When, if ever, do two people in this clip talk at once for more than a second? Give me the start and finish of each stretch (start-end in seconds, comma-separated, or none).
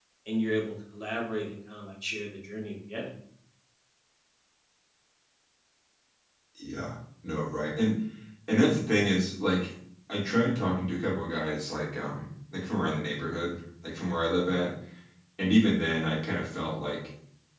none